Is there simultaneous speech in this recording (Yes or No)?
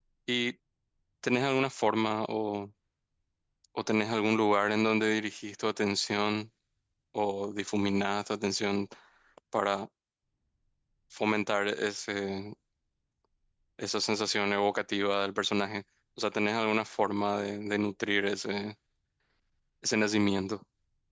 No